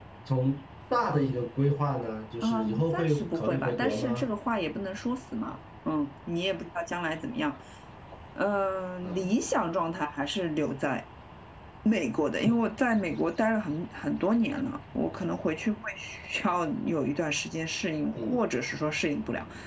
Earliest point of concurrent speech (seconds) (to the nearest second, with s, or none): 2 s